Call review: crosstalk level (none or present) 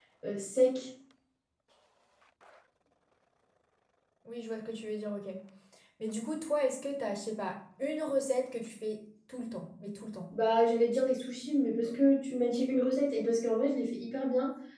none